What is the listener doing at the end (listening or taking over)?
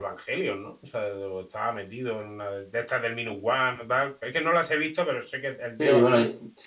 taking over